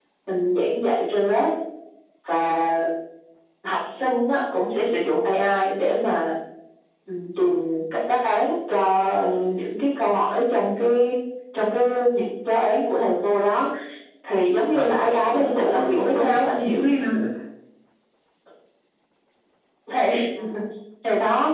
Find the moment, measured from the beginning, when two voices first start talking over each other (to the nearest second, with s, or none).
15 s